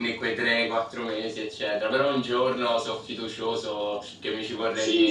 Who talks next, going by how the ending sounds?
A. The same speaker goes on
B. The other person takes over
B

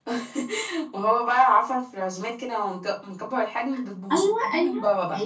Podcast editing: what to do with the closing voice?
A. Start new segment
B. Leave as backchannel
A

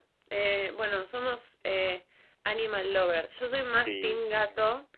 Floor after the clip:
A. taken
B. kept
B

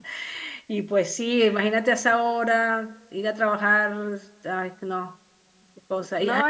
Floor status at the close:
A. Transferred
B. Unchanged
B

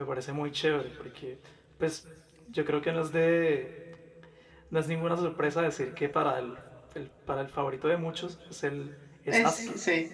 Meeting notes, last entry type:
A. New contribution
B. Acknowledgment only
A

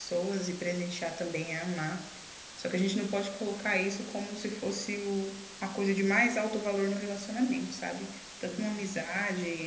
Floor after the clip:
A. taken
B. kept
B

